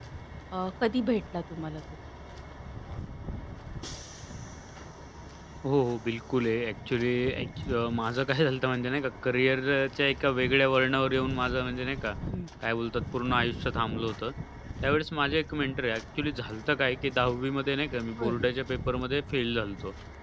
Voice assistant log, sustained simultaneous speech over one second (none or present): none